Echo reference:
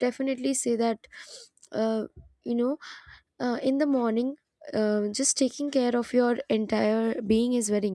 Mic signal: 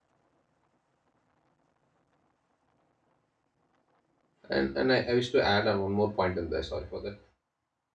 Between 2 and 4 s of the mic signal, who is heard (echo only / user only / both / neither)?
neither